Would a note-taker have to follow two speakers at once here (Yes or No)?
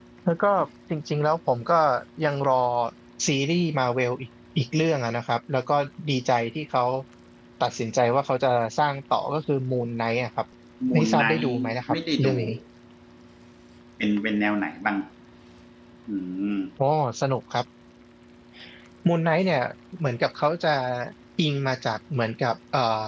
Yes